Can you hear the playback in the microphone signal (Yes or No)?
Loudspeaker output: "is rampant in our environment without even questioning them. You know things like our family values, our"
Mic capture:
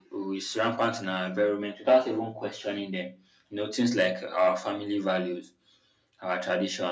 Yes